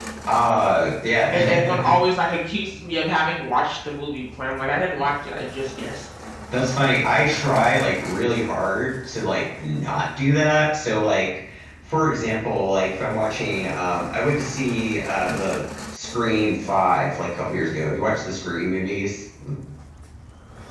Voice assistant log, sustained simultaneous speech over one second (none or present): none